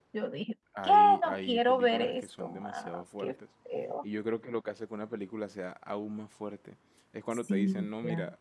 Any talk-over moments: Yes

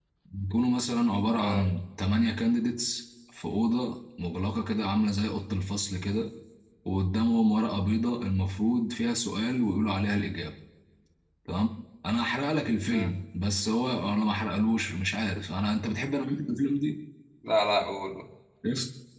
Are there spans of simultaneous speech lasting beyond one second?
No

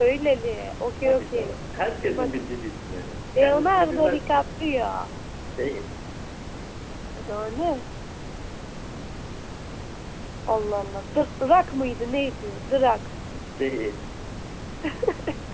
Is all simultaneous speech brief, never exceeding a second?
No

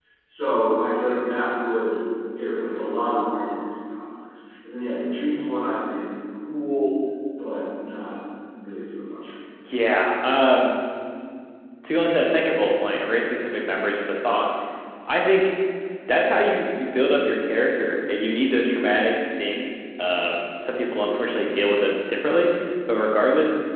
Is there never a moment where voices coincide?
Yes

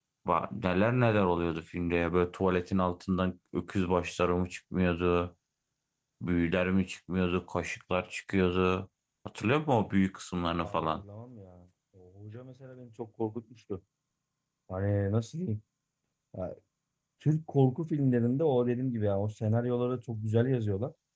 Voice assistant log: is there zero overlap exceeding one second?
Yes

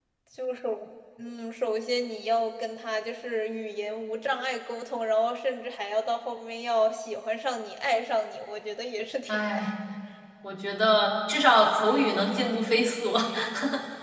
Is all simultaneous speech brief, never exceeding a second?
Yes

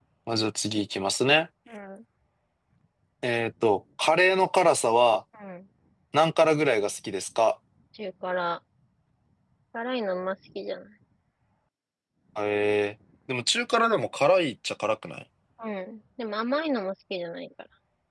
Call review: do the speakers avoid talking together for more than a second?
Yes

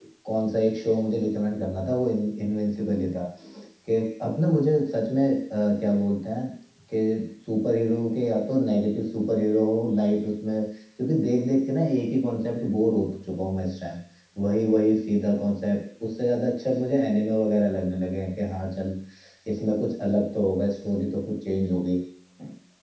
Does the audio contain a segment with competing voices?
No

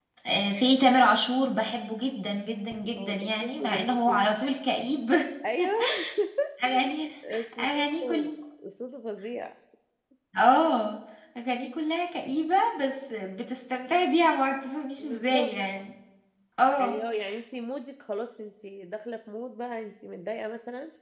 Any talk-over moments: Yes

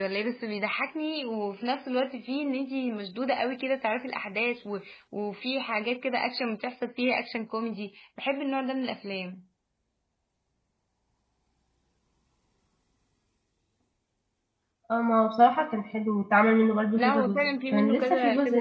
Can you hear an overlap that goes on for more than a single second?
Yes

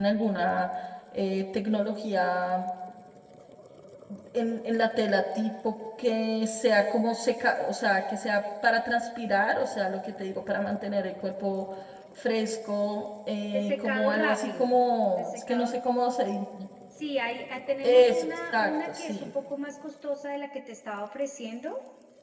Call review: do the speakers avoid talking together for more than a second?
No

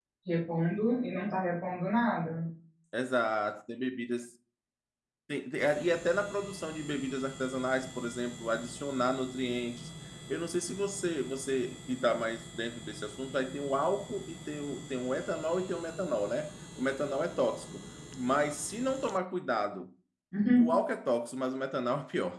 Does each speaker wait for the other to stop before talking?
Yes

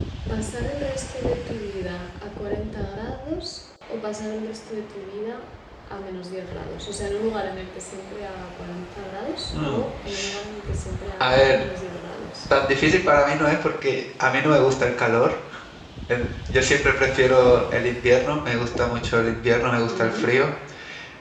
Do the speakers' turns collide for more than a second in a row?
No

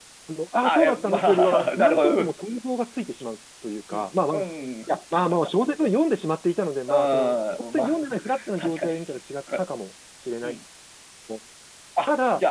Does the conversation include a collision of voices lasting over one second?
Yes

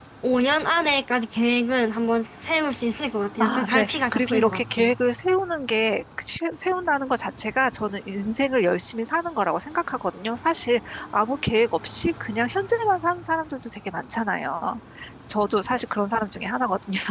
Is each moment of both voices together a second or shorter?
No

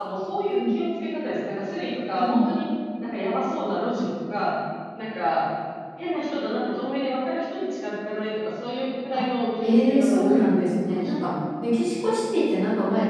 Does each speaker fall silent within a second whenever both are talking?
No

